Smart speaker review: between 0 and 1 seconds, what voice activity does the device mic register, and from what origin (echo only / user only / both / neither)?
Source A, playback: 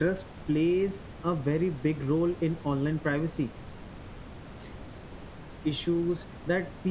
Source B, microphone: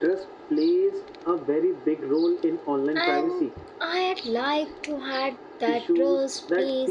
echo only